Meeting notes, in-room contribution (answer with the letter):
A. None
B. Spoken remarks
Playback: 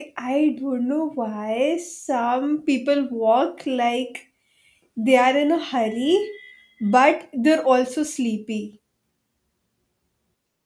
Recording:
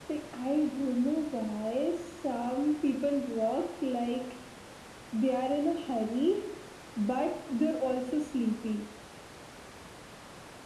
A